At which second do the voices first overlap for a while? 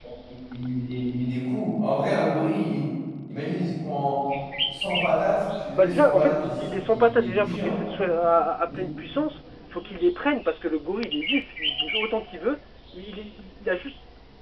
5.8 s

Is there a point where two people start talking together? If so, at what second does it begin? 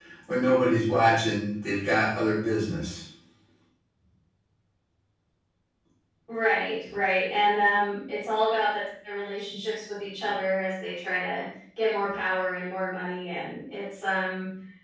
none

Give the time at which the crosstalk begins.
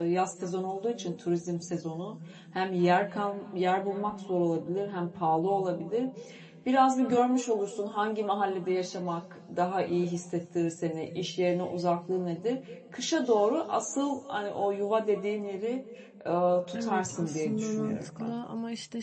16.8 s

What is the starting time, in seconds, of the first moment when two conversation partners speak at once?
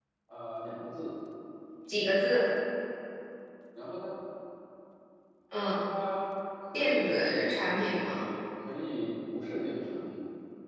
6.7 s

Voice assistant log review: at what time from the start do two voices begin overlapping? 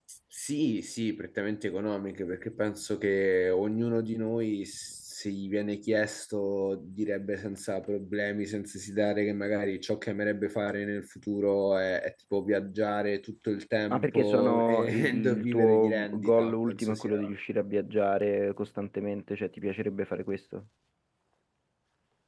13.9 s

